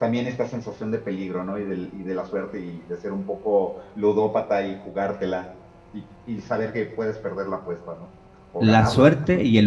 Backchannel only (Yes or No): No